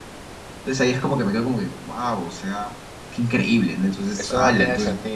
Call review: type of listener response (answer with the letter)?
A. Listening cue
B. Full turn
B